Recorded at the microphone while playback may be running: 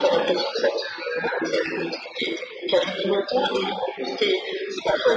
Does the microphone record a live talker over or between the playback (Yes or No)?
No